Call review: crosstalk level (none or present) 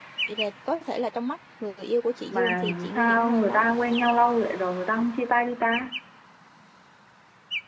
present